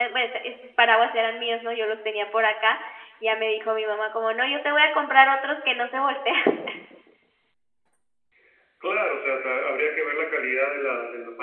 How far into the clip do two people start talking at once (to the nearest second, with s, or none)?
none